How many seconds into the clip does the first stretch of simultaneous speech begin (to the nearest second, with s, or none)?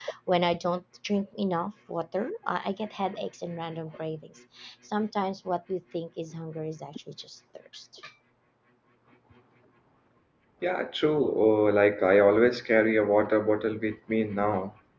none